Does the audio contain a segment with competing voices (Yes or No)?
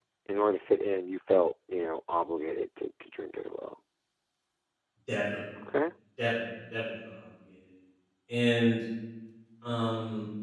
No